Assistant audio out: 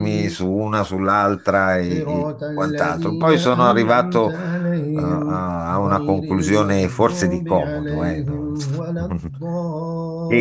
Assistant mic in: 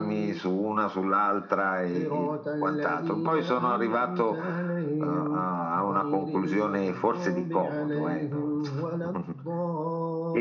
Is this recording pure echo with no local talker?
Yes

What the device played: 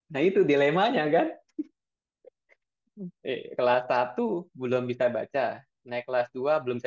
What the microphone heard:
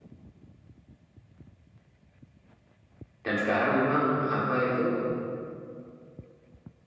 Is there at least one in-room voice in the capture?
Yes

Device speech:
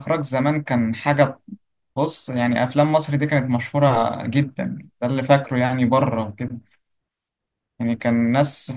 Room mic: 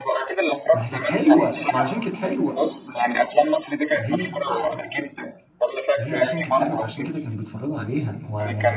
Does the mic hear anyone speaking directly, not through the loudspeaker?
Yes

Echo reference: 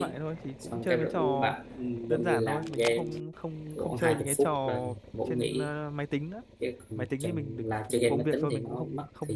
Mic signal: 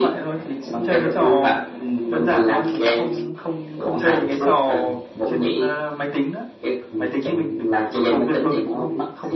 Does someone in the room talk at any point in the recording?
No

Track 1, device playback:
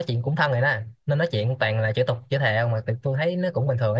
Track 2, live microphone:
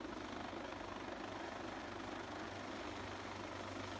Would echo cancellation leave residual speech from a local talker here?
No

